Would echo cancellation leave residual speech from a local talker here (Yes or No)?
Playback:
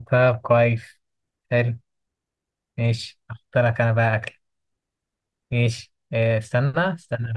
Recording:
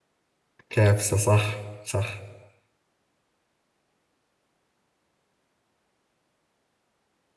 Yes